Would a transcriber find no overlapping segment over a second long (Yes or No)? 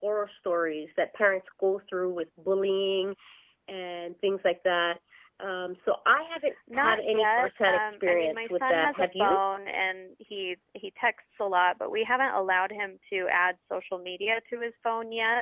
No